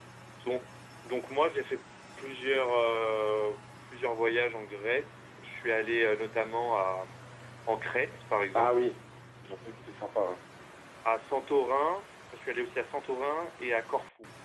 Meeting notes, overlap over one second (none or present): none